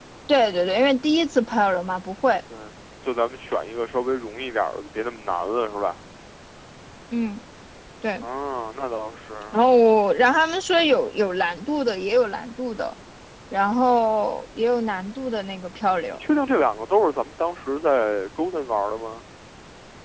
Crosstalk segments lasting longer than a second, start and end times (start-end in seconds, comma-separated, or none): none